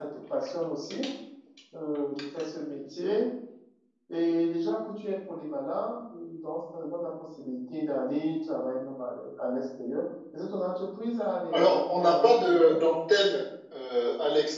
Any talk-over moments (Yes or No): Yes